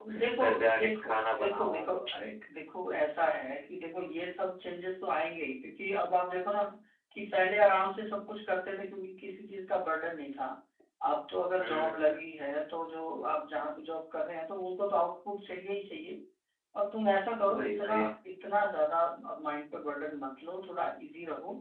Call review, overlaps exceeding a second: present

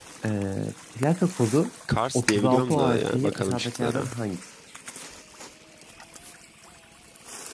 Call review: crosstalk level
present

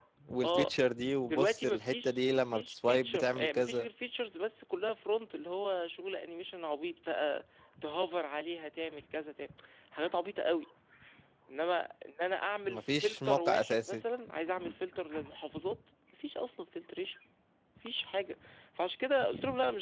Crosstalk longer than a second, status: present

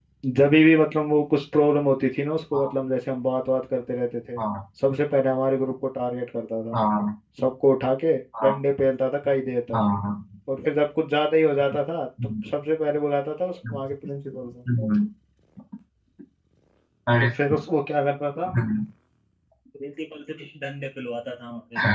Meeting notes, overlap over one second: none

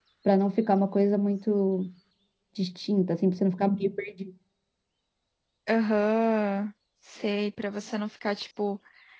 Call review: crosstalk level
none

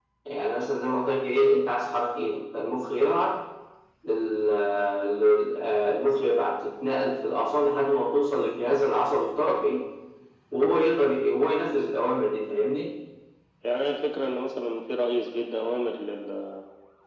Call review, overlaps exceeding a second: none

